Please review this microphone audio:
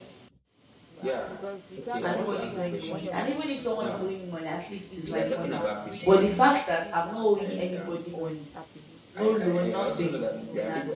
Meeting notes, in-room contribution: present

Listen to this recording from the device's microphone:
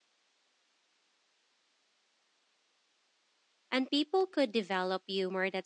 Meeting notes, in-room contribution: present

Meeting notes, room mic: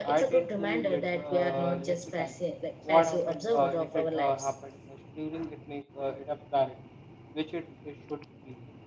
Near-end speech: present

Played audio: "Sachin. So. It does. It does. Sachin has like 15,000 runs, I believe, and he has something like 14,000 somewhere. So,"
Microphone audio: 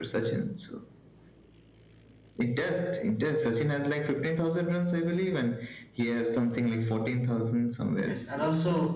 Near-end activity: present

